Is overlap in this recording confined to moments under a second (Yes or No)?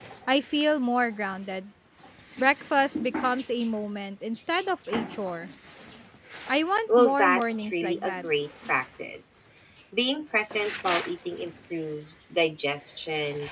No